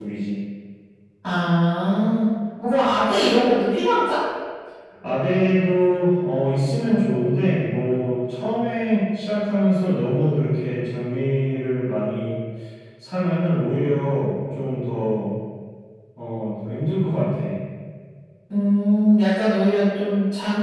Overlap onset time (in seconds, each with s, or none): none